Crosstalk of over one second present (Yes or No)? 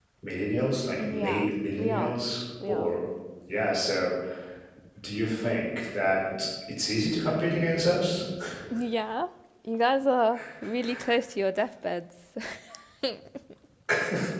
Yes